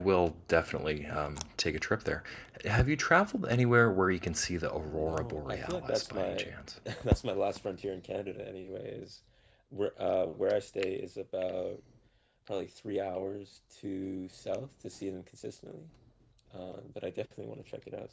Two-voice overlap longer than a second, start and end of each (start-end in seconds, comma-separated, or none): 4.8-6.5